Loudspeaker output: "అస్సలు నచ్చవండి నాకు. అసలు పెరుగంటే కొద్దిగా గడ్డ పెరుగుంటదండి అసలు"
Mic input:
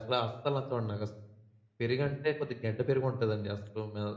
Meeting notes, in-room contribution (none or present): none